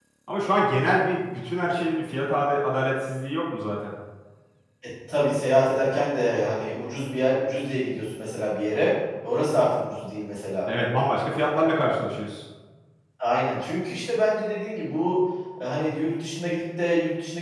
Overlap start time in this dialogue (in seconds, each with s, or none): none